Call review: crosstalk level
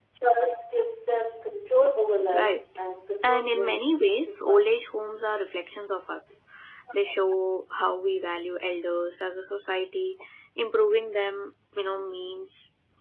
present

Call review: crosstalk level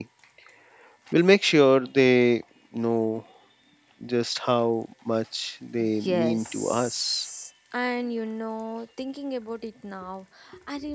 present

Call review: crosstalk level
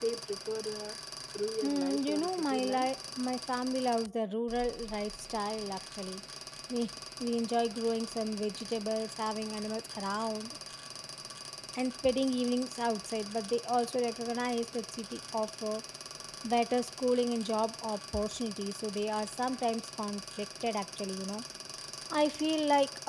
present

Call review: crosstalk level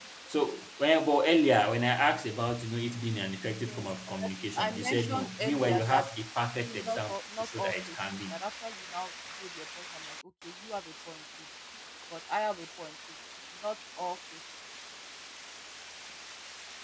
present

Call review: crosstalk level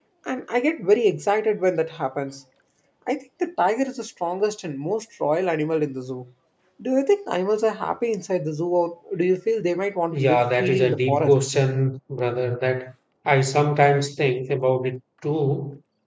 present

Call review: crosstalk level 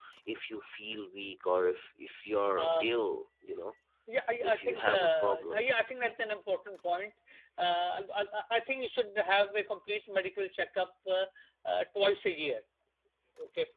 present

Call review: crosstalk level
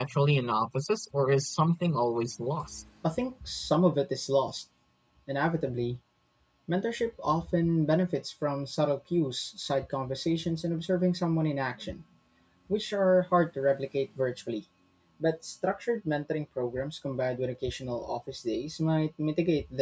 none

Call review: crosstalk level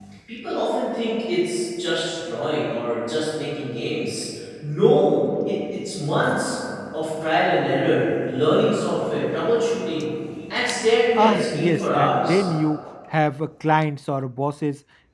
present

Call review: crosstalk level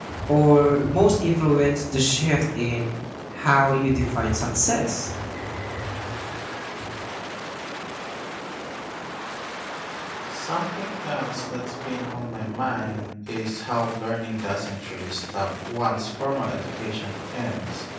none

